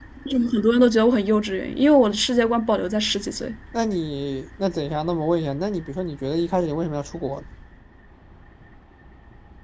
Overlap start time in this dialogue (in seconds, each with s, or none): none